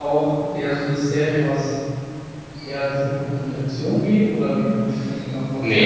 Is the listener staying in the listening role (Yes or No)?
No